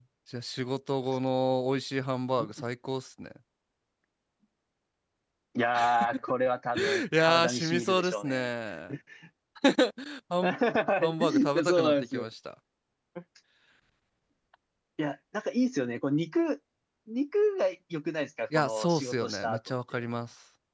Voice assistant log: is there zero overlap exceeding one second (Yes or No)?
No